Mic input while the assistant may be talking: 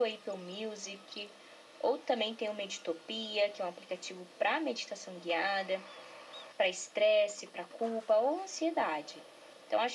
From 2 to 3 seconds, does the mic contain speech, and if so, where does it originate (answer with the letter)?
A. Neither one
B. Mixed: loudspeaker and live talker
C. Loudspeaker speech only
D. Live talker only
C